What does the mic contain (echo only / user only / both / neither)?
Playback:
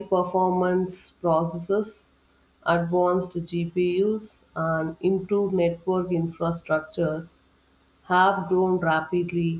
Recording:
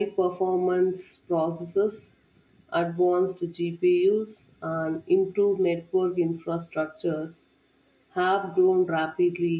echo only